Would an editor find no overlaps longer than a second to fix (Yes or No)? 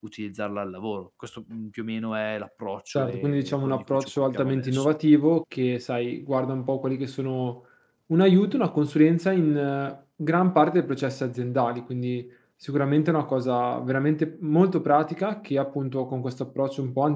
No